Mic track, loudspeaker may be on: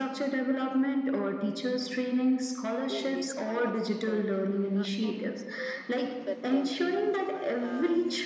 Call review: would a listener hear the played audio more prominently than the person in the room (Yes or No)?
Yes